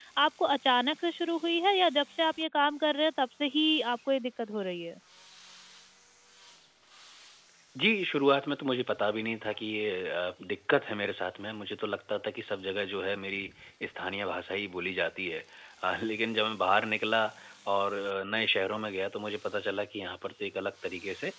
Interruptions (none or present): none